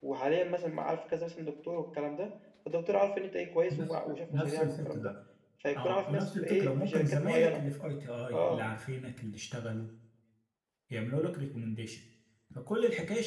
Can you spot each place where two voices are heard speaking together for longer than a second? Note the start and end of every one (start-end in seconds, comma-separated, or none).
3.7-5.1, 5.8-7.6